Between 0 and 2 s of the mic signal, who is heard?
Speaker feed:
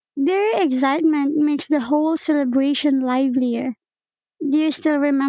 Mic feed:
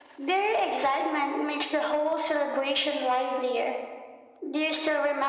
echo only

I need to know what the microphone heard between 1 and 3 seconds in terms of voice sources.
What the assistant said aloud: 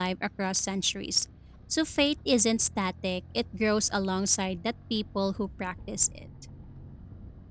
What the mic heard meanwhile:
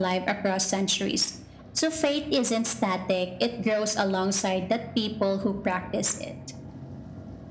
echo only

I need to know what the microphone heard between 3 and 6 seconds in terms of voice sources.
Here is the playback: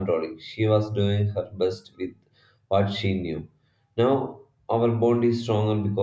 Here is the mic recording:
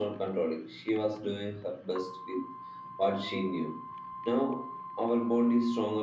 echo only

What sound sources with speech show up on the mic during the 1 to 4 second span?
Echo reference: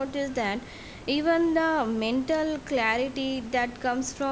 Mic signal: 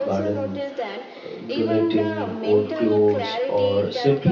both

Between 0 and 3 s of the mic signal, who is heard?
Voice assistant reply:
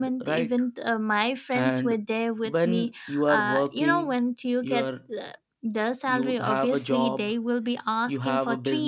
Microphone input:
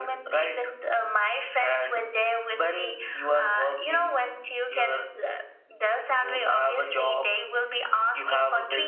echo only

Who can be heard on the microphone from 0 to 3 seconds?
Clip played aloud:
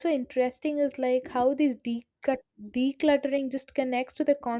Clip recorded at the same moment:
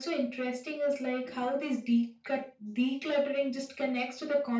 echo only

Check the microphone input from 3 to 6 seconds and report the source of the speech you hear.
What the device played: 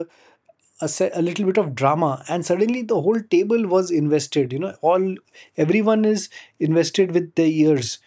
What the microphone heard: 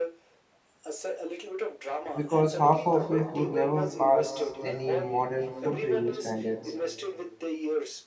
both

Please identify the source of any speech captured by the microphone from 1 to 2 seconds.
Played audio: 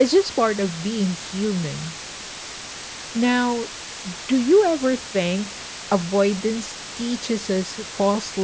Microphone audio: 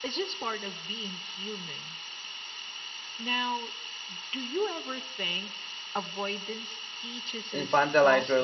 echo only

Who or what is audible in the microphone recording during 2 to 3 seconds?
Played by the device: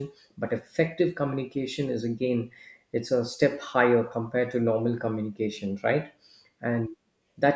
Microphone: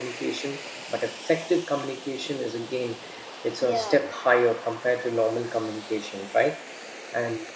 echo only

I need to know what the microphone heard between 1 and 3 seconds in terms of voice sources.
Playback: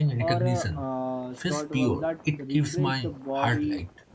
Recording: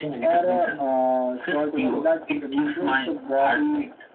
echo only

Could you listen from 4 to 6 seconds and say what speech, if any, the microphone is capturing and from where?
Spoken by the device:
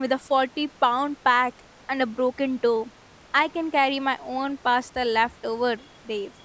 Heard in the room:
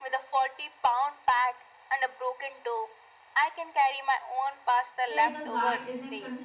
both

